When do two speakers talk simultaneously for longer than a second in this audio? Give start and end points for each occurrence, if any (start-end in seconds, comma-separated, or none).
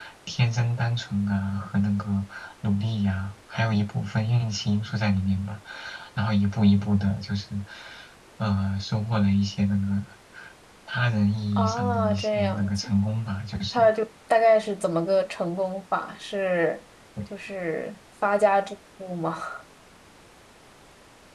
11.6-12.9